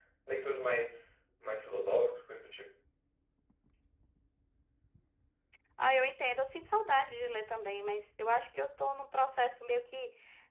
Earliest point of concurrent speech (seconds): none

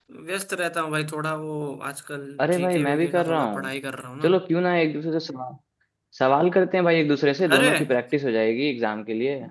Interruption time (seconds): 2.4 s

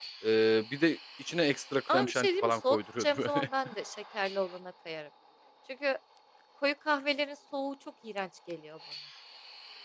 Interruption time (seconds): 1.9 s

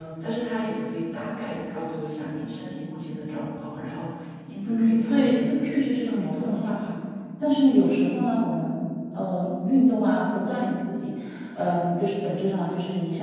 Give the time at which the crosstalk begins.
4.7 s

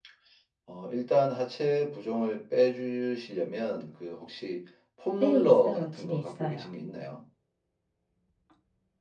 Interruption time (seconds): 5.2 s

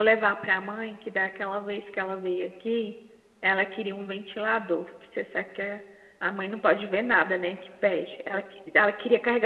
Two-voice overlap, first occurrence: none

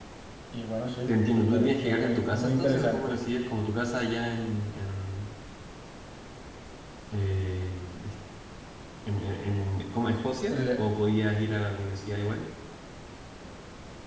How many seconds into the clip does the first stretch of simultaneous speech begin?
1.5 s

